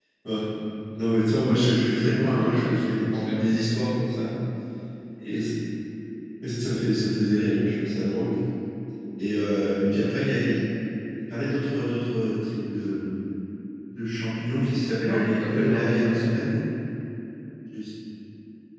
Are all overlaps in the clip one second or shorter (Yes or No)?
No